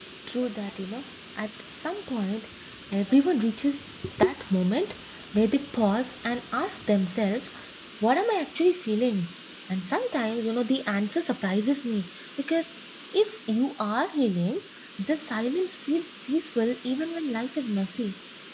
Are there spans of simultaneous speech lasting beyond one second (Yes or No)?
No